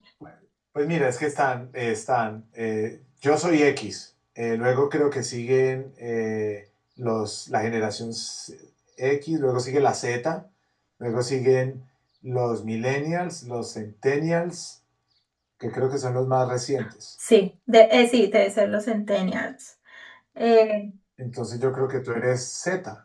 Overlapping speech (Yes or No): No